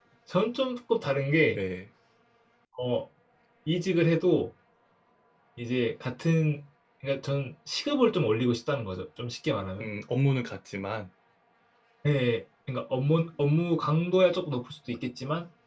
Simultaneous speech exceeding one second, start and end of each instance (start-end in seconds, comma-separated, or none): none